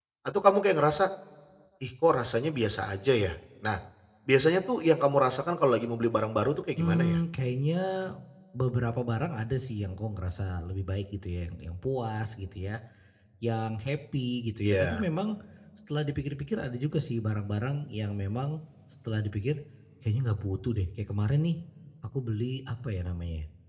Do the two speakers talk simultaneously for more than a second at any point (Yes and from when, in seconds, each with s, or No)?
No